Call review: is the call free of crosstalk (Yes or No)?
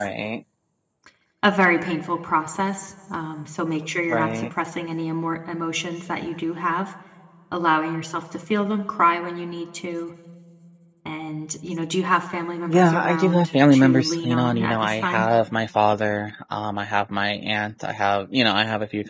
No